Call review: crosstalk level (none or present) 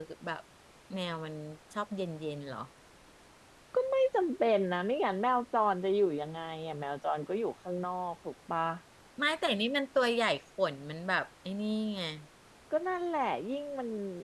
none